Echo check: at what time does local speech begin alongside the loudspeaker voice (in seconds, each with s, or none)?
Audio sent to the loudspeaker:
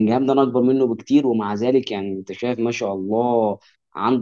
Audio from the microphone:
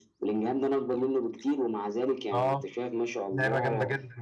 2.3 s